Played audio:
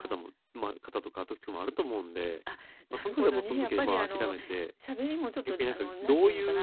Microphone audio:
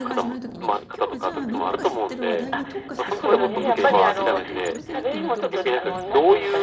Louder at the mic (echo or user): echo